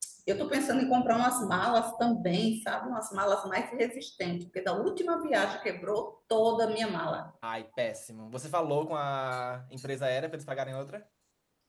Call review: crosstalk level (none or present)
none